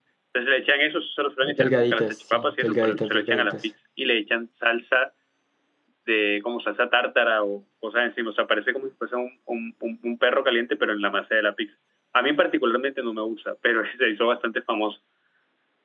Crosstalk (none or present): present